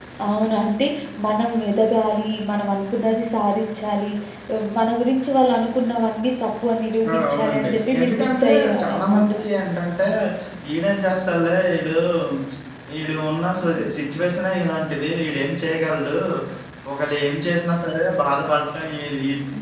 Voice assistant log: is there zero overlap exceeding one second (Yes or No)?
No